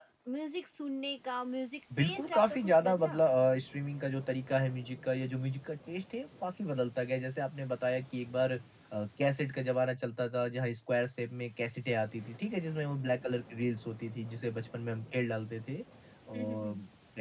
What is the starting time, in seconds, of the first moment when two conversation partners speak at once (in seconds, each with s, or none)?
2.0 s